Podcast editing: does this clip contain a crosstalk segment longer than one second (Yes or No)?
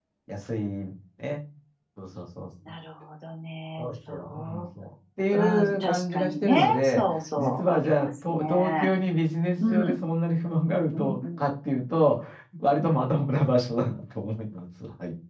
Yes